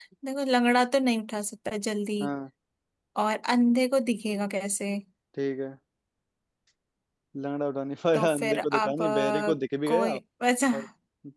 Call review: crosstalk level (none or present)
present